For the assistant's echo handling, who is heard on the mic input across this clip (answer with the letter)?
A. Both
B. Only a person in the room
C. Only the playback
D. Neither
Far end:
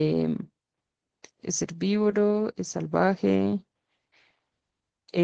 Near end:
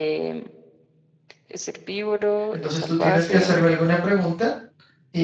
A